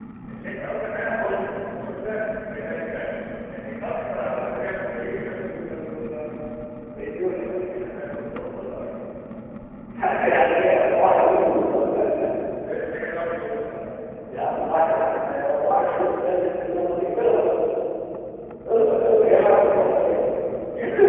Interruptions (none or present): present